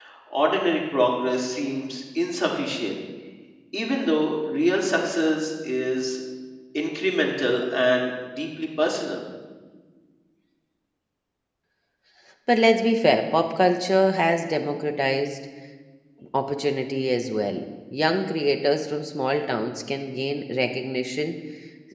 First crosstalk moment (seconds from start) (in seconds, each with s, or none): none